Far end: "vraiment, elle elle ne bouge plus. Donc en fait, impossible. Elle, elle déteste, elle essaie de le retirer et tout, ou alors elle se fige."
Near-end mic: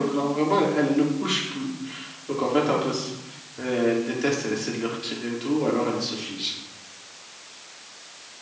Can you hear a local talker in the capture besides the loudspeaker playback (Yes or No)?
No